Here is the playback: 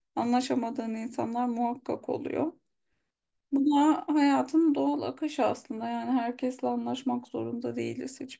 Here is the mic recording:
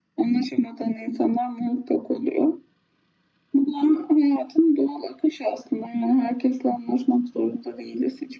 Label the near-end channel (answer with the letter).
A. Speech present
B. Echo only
B